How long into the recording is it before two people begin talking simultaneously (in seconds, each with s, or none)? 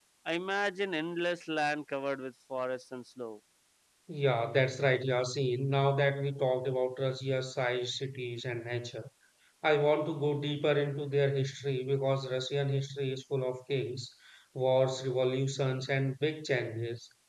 none